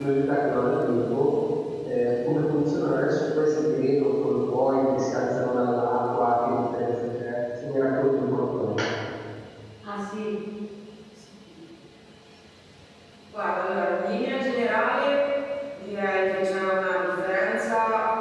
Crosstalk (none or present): none